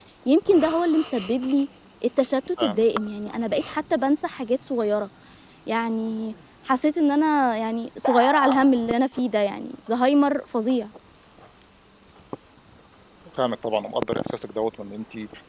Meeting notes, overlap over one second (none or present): none